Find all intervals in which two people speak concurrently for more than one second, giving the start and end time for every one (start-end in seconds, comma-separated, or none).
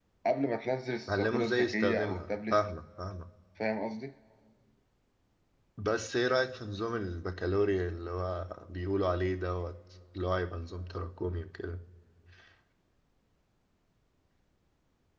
1.1-2.5